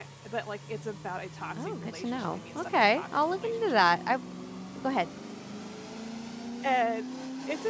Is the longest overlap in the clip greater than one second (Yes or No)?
Yes